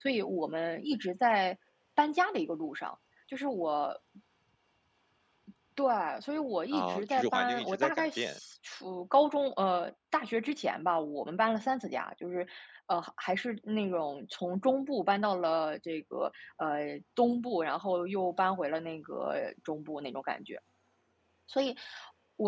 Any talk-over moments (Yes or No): Yes